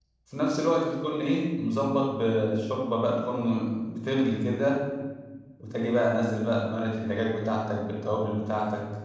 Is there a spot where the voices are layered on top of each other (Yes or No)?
No